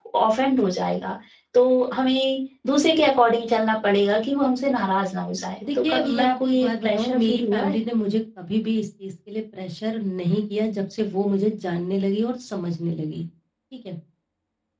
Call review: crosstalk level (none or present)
present